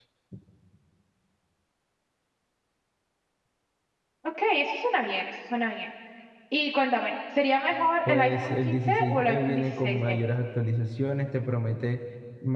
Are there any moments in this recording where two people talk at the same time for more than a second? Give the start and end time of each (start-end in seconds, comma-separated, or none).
8.1-10.2